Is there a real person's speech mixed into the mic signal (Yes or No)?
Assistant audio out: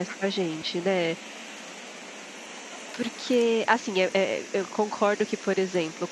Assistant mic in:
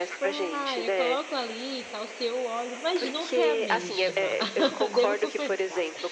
Yes